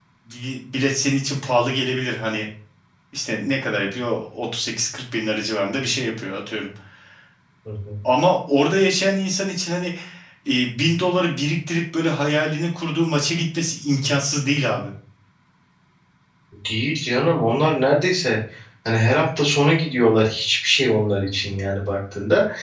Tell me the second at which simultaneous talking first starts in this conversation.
none

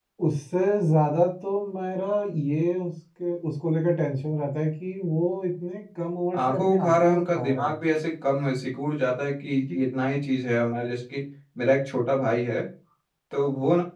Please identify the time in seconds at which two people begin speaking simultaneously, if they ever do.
6.3 s

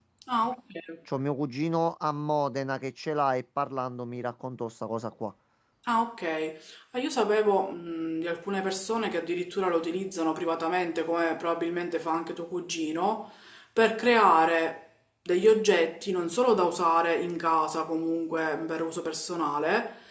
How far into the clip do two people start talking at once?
none

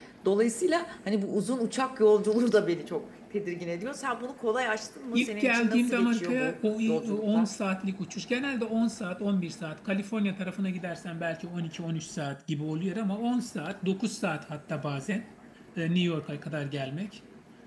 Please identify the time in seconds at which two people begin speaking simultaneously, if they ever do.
5.1 s

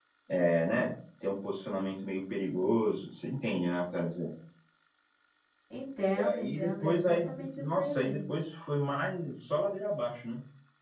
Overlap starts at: 6.1 s

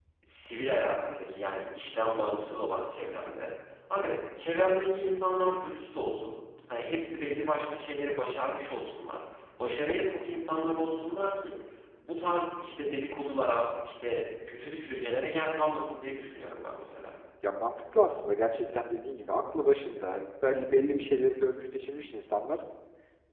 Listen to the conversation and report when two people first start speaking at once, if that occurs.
none

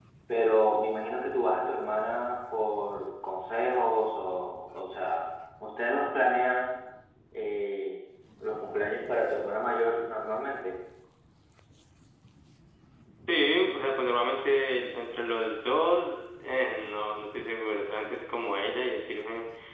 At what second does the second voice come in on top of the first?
none

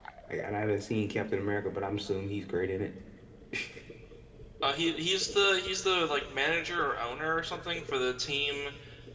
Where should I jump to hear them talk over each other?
none

